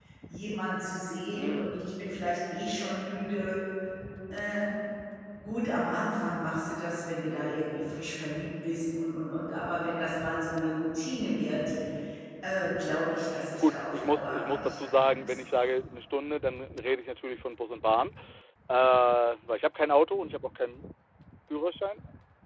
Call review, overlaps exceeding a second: present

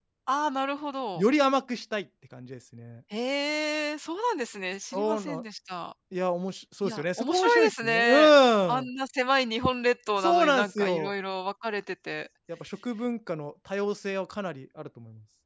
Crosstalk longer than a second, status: present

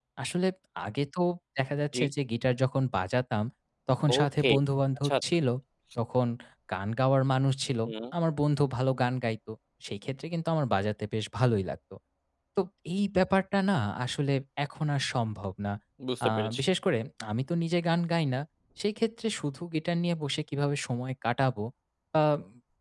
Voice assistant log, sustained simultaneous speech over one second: none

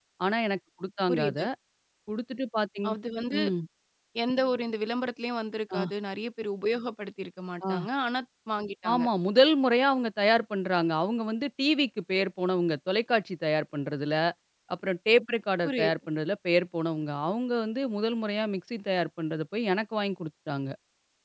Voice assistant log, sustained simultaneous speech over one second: none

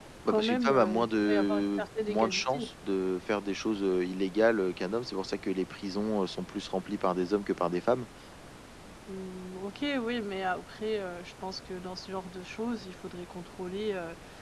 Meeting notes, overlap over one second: present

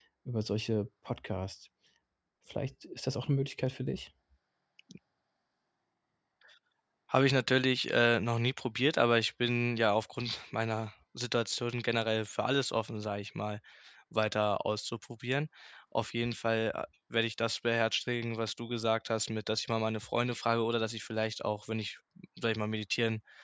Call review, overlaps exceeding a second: none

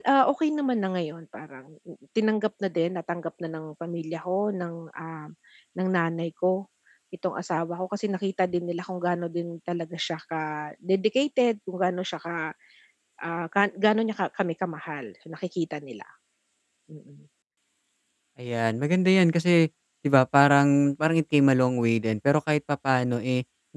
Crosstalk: none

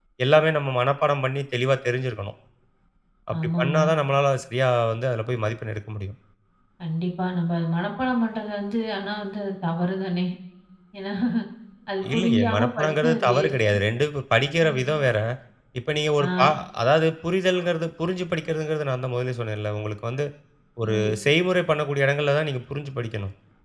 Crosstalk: present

